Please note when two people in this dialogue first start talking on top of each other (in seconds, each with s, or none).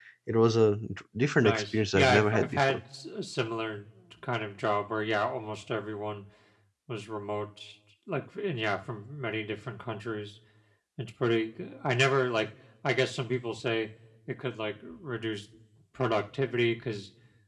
1.4 s